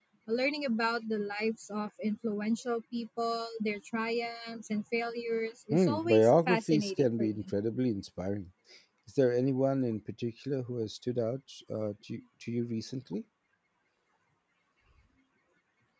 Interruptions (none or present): present